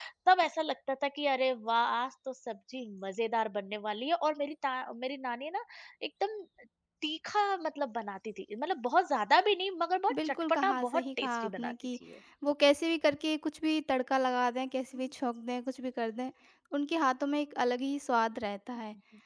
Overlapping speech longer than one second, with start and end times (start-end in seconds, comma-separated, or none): 10.2-11.7